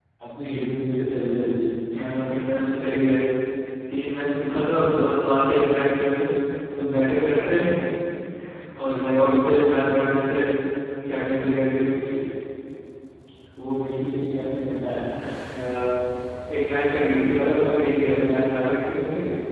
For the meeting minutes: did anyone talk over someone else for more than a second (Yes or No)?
No